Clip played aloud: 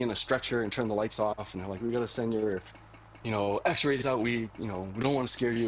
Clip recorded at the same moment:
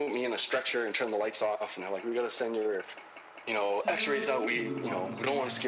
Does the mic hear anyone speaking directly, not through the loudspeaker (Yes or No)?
Yes